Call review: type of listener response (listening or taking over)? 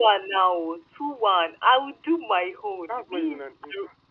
taking over